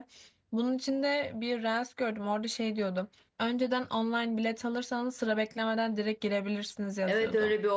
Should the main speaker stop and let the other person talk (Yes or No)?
Yes